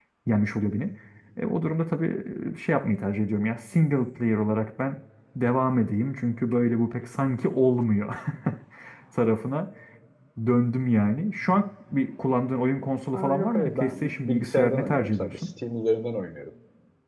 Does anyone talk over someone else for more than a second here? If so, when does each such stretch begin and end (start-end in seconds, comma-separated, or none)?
13.1-15.4